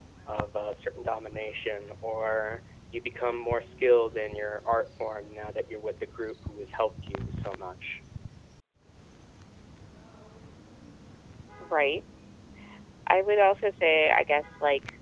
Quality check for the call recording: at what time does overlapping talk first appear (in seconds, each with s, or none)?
none